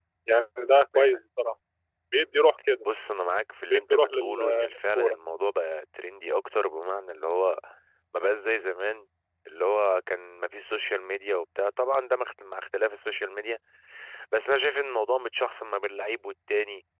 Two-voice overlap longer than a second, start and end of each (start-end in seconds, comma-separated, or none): 3.7-5.2